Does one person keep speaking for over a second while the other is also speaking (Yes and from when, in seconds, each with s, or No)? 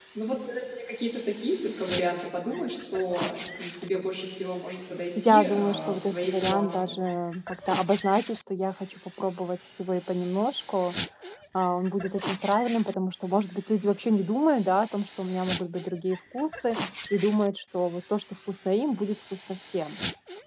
Yes, from 5.2 s